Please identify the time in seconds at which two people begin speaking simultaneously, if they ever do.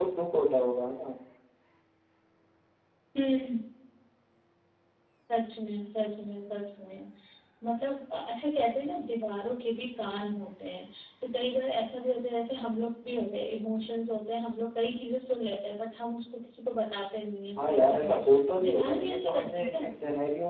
18 s

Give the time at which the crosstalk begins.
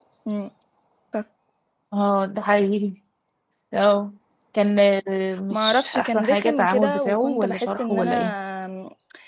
6 s

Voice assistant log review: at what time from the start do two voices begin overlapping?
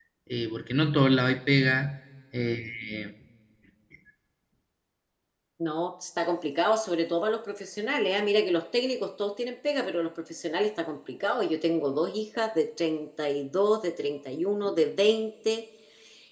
none

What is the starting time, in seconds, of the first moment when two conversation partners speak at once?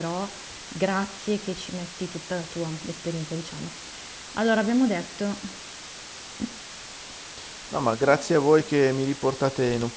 none

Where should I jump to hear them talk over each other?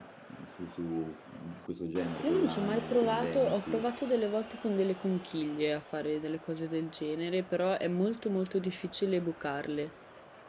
2 s

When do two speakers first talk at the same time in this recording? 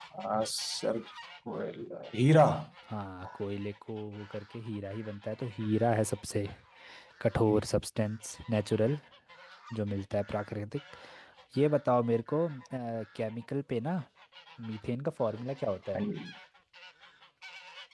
none

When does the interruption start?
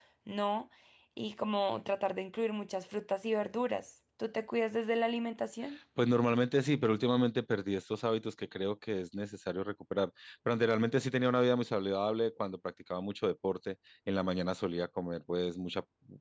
none

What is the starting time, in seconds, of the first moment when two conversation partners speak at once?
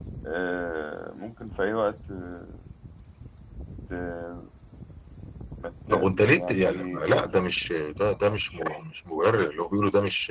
6 s

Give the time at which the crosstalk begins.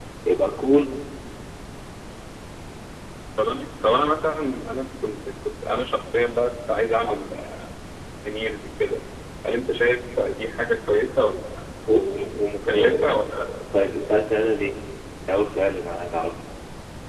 12 s

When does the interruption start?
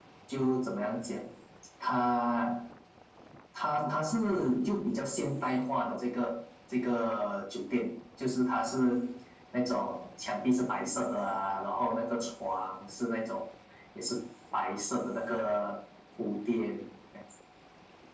none

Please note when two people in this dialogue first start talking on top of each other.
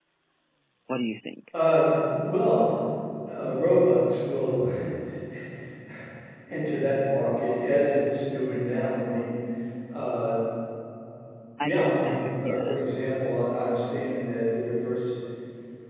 12 s

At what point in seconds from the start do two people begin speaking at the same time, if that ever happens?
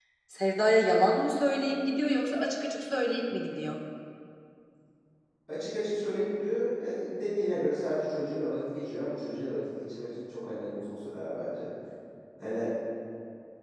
none

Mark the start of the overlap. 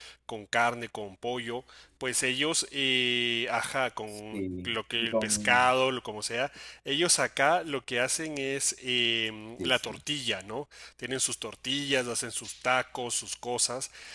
4 s

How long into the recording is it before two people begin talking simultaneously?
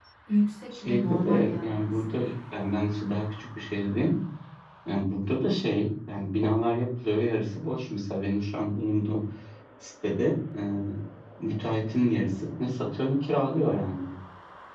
1 s

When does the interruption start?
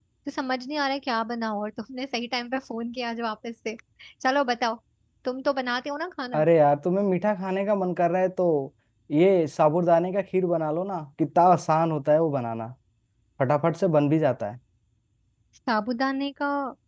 none

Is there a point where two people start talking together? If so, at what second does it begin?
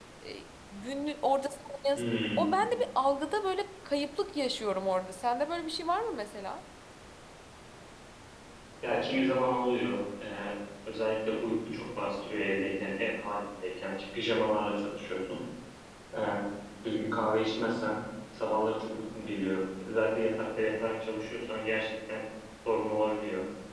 none

